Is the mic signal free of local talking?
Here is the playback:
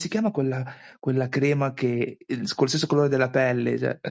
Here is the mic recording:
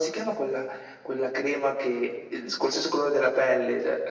Yes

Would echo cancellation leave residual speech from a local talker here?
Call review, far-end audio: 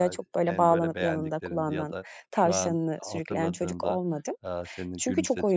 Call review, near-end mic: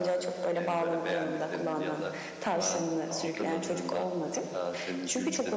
No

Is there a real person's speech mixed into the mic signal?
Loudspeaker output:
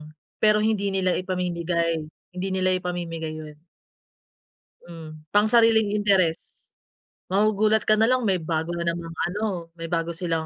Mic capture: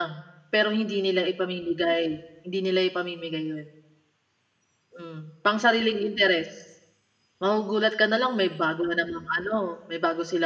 No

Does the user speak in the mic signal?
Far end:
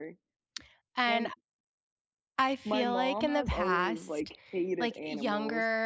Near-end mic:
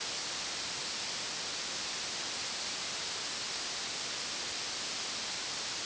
No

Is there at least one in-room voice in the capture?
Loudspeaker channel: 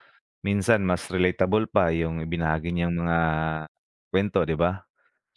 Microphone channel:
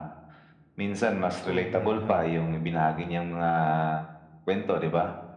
Yes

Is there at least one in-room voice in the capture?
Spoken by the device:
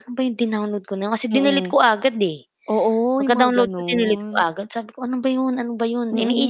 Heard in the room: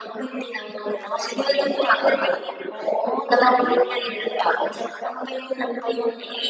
Yes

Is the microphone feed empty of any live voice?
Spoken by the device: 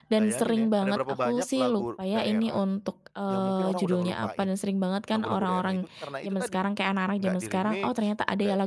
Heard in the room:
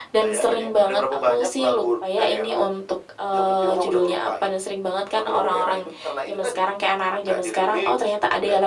Yes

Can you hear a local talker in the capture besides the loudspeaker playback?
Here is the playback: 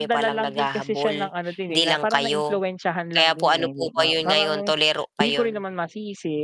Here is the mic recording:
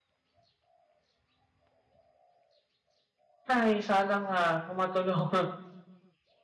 Yes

